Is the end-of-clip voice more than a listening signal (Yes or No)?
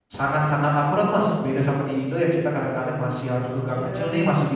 No